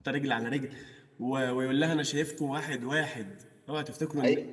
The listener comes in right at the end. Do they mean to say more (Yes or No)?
Yes